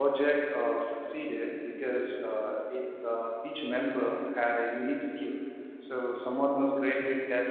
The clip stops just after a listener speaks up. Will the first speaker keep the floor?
Yes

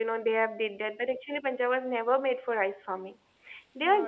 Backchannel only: No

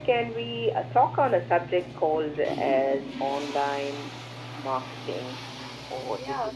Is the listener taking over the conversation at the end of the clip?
No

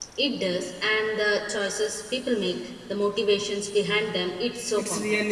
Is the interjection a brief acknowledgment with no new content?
No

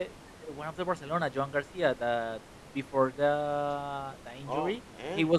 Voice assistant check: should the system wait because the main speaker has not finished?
Yes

